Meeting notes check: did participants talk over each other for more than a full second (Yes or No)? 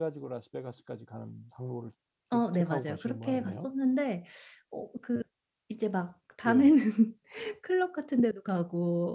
Yes